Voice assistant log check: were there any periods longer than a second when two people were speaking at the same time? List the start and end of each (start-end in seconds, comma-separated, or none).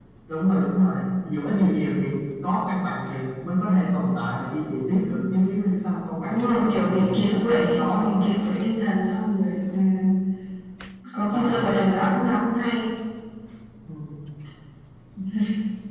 6.3-8.1